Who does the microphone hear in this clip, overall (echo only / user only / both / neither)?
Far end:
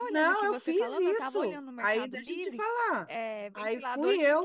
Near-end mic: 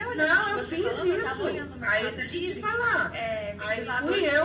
echo only